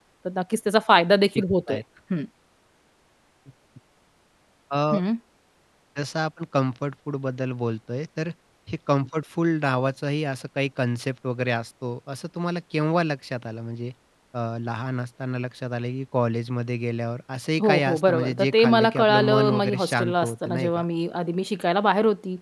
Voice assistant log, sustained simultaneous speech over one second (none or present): present